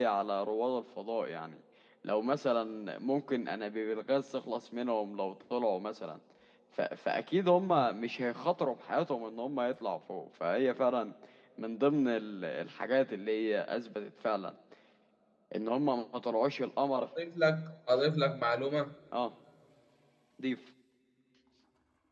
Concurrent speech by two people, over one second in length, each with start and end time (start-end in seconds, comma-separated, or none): none